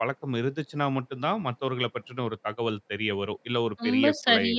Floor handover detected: Yes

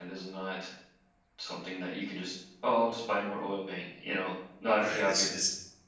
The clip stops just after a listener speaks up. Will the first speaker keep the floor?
No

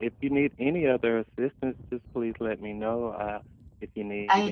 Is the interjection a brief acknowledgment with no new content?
No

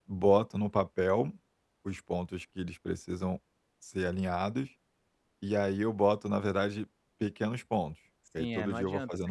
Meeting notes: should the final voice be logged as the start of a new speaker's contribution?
Yes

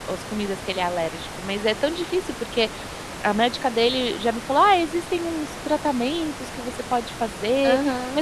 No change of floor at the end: Yes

